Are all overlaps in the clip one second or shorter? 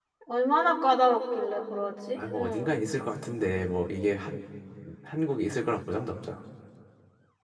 Yes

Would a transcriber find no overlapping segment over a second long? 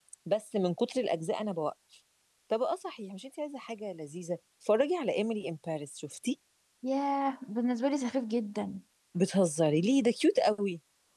Yes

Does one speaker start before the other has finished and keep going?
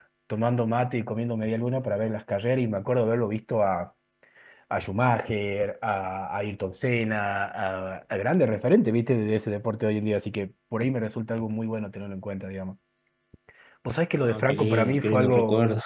Yes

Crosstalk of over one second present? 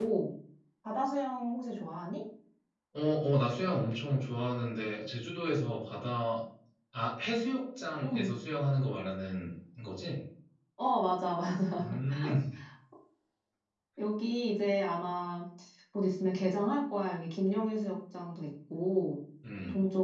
No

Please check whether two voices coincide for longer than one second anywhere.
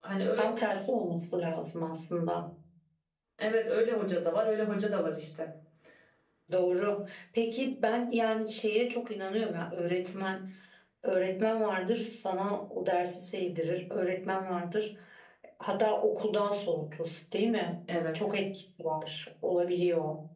No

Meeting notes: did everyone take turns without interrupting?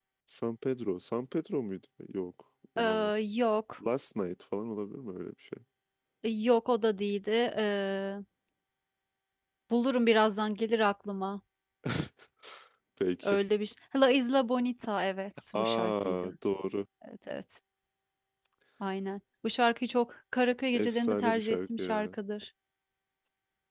No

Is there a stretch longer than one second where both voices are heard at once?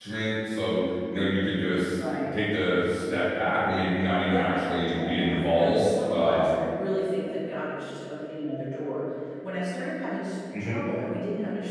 Yes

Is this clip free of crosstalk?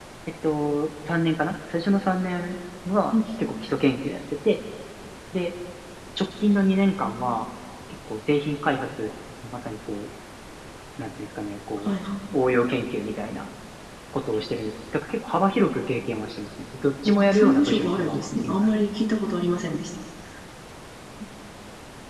No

